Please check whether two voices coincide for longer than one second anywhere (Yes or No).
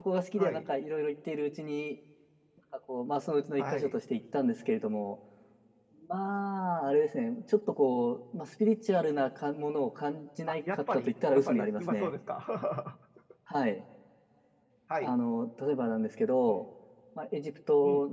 Yes